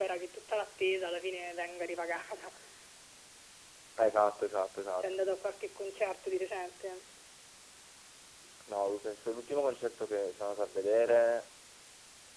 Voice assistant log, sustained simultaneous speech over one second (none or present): none